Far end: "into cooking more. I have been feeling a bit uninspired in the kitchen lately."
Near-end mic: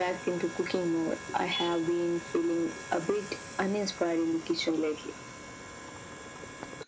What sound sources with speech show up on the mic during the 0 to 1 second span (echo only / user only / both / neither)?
echo only